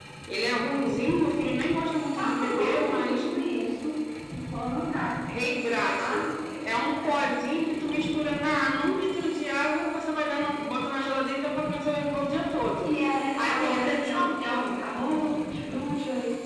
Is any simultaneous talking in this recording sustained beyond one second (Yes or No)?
Yes